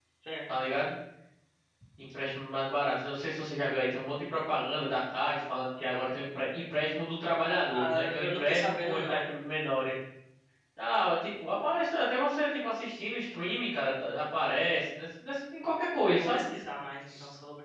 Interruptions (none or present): present